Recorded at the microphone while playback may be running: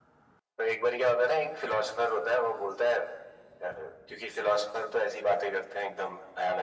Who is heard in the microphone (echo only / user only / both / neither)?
echo only